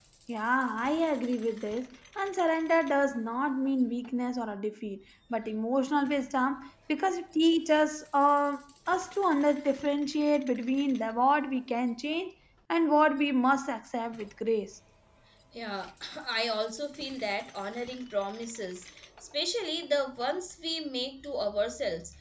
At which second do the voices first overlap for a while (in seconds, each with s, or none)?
none